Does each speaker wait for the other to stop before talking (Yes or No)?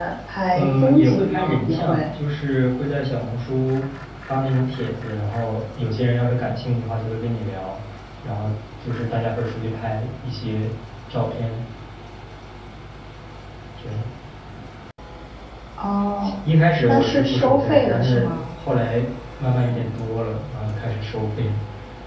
No